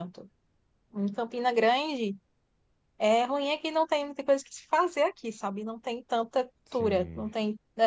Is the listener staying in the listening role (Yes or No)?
Yes